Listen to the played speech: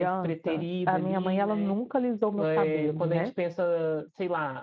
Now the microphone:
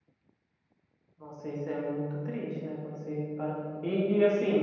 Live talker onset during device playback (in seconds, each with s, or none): 1.2 s